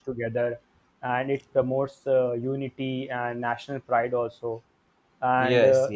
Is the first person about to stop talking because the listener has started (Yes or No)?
No